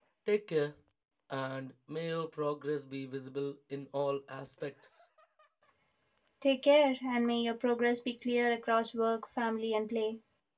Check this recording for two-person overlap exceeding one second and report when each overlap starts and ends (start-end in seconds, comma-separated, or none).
none